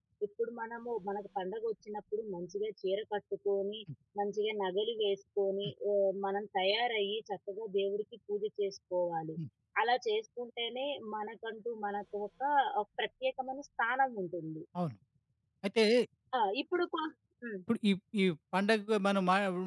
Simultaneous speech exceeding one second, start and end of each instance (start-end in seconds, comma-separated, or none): none